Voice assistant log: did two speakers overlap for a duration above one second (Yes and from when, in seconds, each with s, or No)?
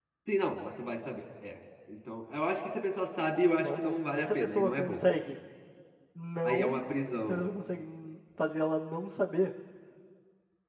Yes, from 3.6 s